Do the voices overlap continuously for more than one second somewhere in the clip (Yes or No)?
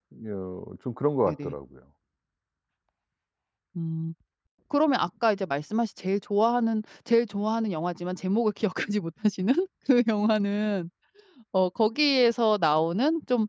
No